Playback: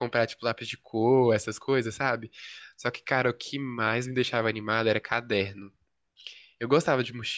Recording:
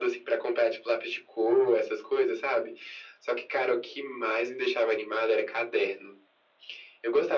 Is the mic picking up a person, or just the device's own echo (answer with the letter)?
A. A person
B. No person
B